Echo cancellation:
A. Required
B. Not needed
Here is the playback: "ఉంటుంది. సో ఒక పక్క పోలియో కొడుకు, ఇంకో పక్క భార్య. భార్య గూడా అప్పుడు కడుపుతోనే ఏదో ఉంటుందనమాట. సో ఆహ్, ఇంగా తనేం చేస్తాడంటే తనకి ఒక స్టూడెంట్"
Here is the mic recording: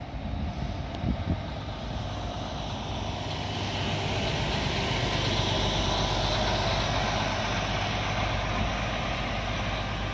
B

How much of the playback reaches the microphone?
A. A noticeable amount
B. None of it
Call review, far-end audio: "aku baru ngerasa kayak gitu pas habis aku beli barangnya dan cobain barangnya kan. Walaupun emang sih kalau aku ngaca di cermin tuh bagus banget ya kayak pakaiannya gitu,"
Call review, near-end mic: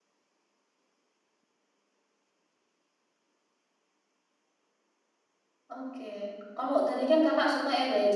B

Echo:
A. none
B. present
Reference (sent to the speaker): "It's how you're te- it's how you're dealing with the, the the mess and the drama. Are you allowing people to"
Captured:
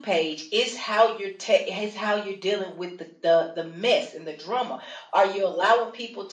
B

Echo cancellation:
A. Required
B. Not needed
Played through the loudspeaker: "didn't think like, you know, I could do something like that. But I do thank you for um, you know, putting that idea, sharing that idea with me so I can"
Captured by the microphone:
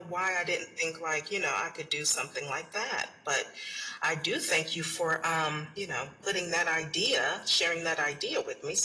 A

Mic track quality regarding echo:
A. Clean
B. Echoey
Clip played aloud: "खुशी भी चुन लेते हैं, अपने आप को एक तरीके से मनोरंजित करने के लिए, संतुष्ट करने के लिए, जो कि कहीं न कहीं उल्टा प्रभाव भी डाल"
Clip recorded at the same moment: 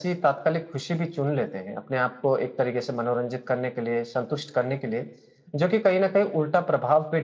B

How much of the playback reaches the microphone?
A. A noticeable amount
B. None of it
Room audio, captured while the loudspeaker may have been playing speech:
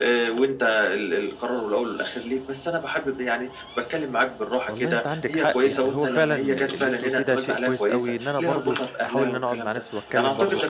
A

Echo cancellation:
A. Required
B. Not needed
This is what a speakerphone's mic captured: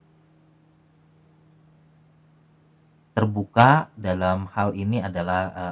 B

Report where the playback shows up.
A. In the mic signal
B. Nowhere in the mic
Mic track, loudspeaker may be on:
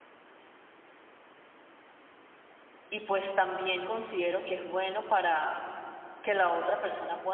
B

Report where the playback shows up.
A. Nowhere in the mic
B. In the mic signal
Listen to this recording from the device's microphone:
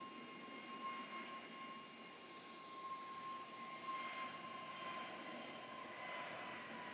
A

